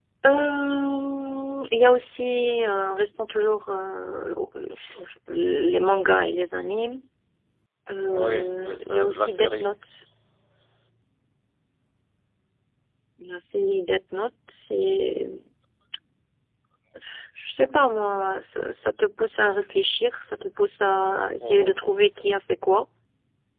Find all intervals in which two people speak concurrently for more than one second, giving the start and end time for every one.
8.1-9.7

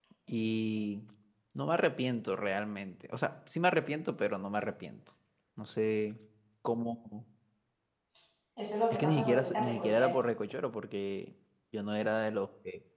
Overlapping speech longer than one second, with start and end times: 8.9-10.2

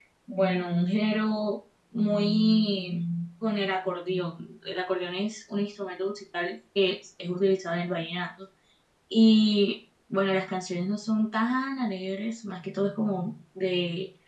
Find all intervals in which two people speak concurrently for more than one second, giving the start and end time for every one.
none

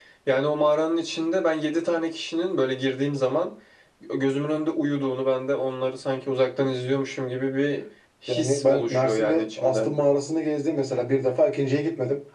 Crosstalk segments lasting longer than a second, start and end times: 8.3-9.9

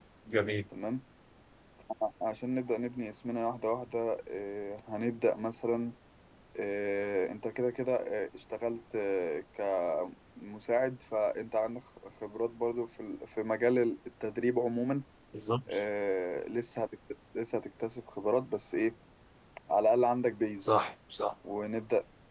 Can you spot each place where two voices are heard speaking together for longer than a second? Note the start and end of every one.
none

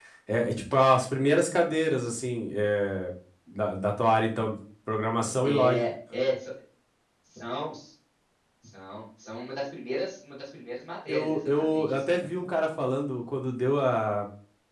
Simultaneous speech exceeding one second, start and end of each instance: 11.1-12.4

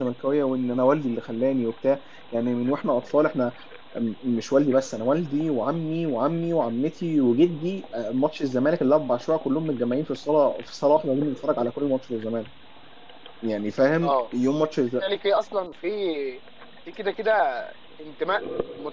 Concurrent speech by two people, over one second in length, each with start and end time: none

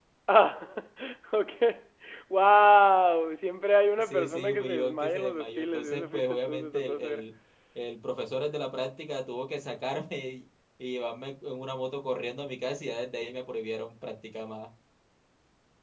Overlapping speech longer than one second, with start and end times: 4.0-7.3

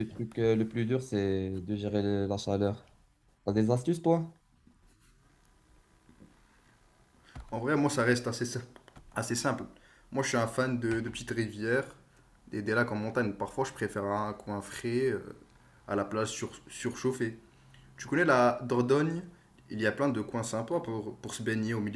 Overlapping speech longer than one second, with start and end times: none

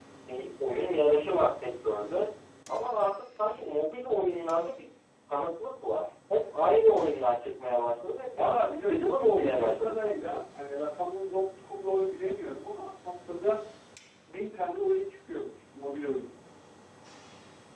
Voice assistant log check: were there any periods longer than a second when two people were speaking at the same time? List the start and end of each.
8.3-10.2

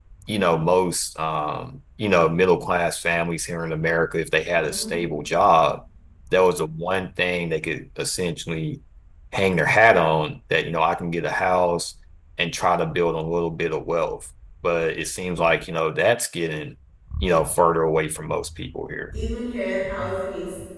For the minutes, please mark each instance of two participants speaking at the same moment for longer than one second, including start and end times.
none

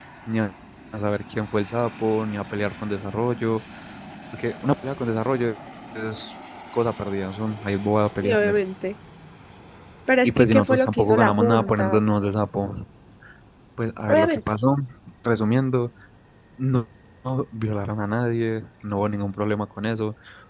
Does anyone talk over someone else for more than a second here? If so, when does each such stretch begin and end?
10.2-12.0

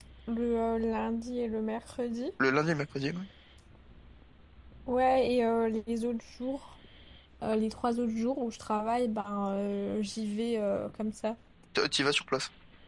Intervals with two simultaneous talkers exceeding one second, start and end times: none

